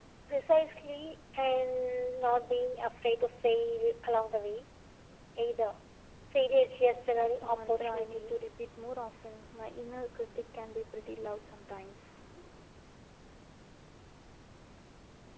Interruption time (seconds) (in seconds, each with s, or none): 7.1 s